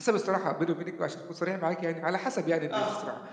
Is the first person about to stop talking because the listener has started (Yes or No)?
No